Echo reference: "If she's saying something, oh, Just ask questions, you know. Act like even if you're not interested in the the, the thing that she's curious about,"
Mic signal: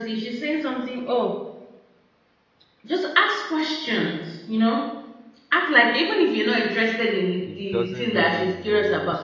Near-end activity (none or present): present